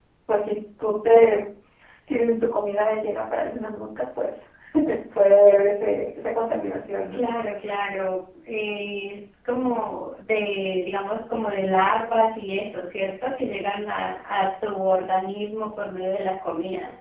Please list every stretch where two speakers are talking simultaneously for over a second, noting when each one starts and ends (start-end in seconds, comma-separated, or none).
none